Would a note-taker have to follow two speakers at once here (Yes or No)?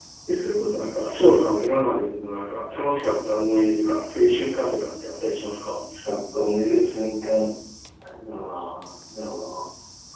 No